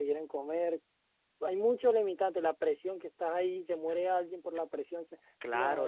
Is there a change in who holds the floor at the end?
Yes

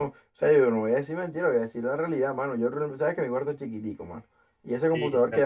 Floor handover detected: No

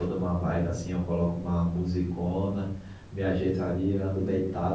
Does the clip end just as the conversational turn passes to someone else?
No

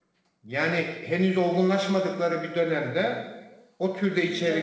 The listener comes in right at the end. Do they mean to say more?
No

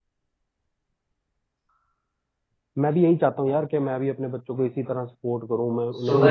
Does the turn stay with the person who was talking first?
No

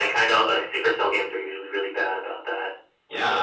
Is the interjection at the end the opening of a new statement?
Yes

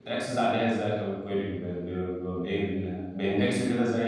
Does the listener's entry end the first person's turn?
No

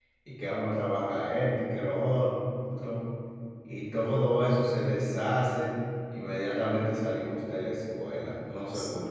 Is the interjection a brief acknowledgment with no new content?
No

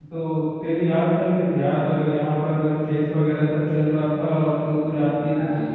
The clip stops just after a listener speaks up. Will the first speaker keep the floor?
No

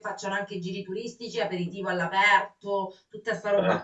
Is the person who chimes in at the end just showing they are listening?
Yes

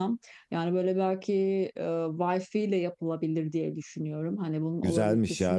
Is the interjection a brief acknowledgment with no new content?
No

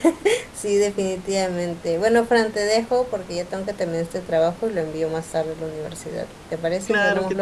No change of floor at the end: No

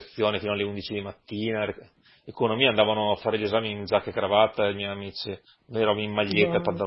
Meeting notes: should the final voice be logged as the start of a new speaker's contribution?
Yes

